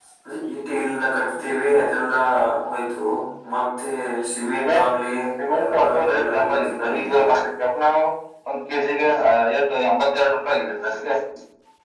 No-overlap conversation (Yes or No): No